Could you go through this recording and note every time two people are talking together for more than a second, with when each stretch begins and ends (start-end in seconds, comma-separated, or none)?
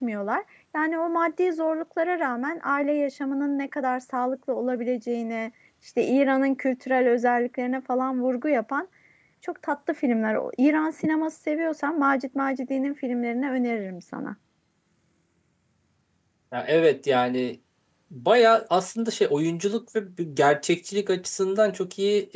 none